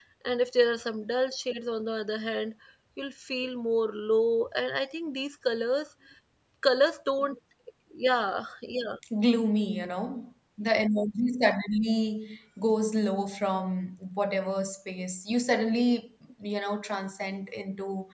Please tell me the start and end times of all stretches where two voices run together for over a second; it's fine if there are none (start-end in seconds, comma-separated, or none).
none